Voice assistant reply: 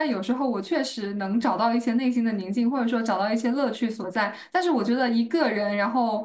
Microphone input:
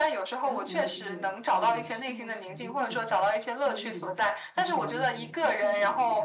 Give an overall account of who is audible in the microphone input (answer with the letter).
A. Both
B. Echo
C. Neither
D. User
A